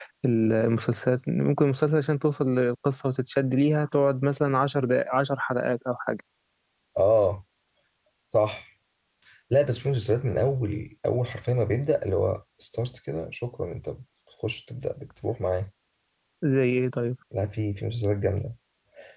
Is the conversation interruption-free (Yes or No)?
Yes